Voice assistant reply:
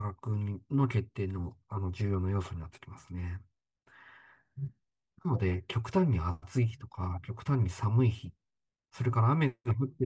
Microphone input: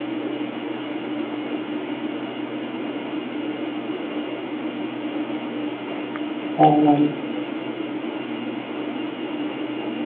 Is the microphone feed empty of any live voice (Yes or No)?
No